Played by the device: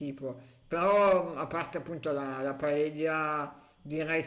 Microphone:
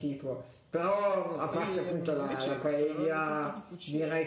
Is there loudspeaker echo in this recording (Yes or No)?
Yes